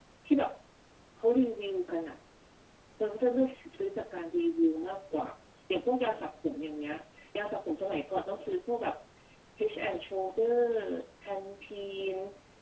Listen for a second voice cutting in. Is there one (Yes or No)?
No